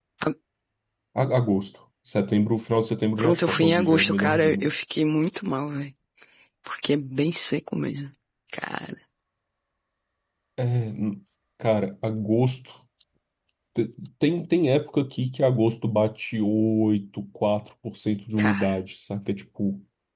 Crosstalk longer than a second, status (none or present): present